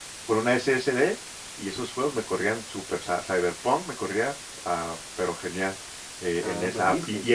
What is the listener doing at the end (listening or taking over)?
listening